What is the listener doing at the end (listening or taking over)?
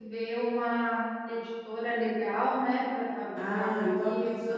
taking over